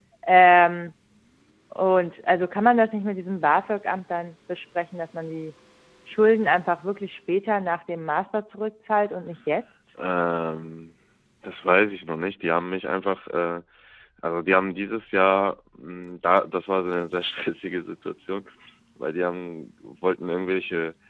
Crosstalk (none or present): none